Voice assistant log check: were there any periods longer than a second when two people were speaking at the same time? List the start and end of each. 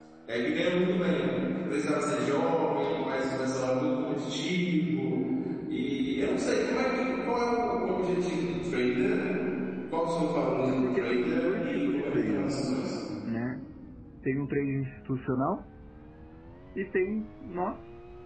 10.7-12.5

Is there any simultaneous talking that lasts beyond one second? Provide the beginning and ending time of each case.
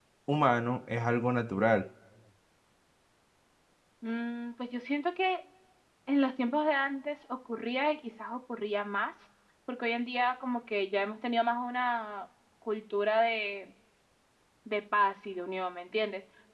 none

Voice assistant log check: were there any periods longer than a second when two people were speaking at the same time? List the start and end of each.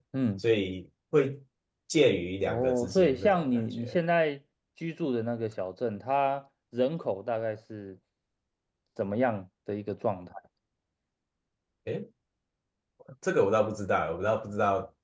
2.5-4.0

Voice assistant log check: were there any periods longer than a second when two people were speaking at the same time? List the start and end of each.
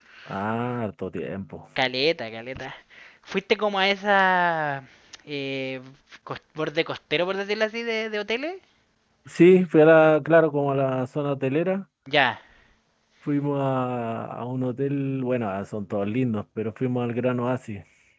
none

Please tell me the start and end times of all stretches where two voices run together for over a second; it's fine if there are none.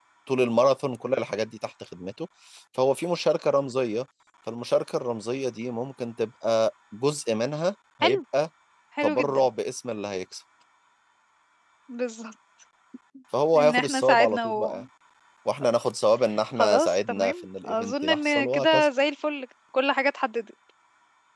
13.6-14.8, 16.6-18.9

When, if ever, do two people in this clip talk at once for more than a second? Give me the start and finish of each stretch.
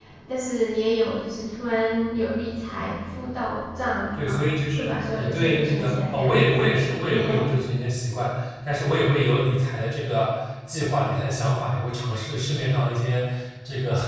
4.1-6.4

